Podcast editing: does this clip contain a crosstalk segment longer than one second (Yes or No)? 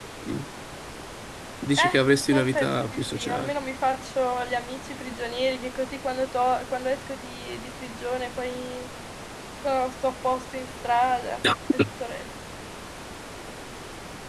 Yes